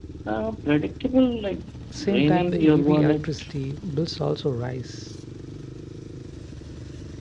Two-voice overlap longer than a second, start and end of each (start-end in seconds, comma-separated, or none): 2.0-3.2